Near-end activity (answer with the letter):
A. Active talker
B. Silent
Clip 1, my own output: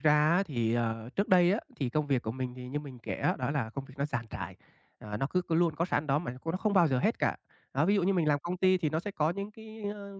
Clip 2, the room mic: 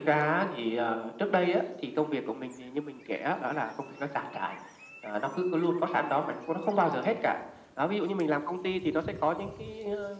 B